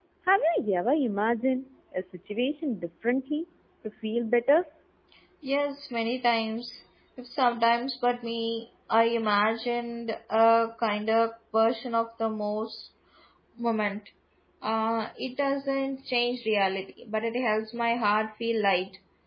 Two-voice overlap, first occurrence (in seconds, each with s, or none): none